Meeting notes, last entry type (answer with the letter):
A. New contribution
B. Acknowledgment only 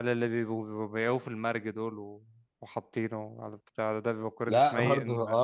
A